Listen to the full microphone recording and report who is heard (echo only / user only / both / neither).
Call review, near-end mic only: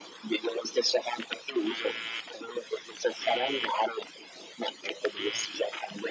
echo only